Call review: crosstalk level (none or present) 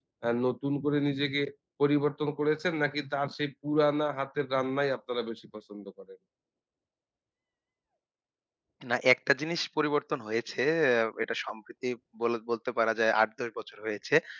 none